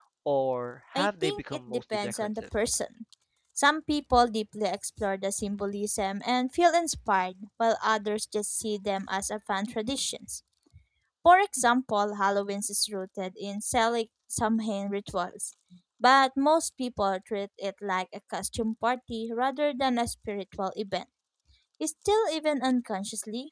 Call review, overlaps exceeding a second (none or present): present